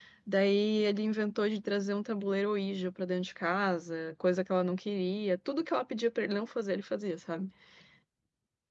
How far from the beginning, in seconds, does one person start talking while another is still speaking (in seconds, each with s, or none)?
none